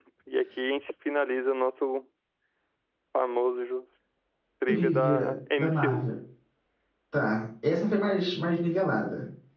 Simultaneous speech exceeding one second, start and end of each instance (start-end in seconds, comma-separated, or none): 4.7-6.1